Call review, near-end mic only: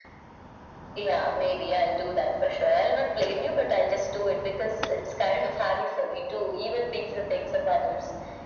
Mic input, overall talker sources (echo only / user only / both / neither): echo only